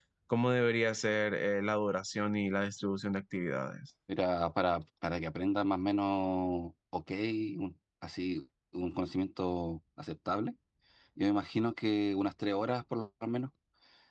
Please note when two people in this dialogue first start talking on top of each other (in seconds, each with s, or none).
none